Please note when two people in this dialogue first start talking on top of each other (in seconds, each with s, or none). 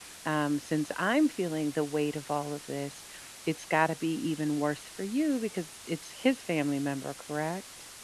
none